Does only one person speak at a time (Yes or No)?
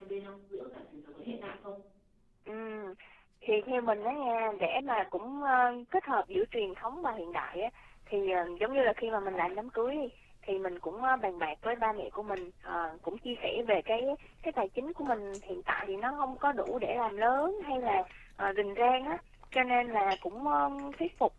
Yes